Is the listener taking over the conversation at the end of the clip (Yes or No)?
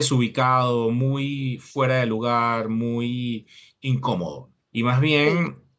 No